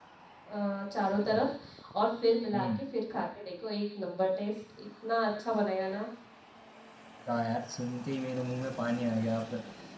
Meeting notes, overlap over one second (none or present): none